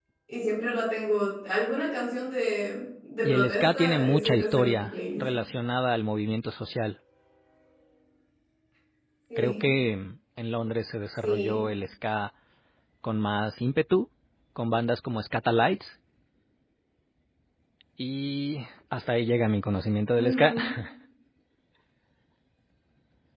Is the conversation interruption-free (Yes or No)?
No